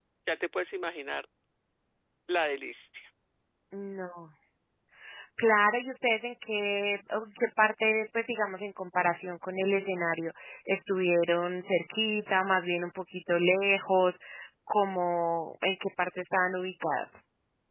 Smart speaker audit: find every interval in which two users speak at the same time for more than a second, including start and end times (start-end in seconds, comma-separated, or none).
none